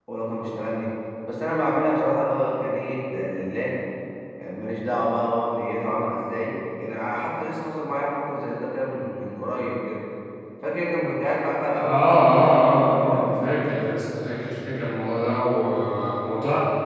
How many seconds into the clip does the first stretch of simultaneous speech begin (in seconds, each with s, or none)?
11.6 s